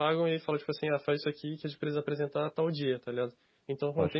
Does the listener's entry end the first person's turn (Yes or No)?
No